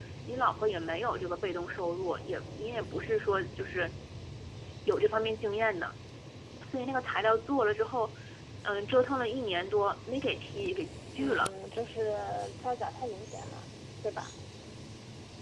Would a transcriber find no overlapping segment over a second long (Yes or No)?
Yes